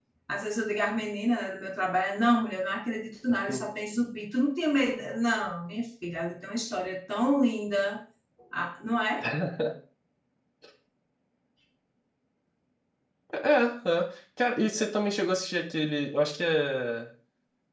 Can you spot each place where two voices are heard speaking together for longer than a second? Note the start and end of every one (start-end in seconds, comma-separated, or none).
none